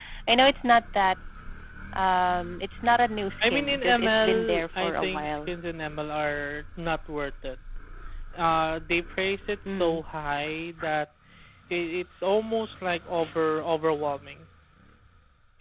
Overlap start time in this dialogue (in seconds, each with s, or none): 3.5 s